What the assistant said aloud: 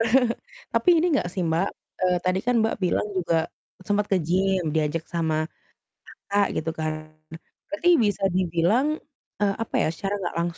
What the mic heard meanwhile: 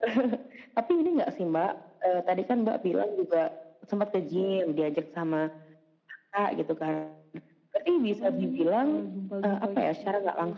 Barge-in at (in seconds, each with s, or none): 8.1 s